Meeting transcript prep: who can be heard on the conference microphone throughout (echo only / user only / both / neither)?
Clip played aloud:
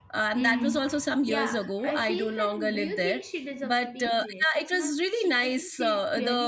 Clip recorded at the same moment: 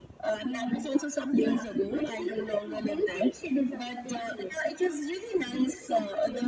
echo only